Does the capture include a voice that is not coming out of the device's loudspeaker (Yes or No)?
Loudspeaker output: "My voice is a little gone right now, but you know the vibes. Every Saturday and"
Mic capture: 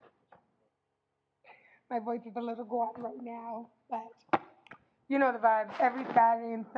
No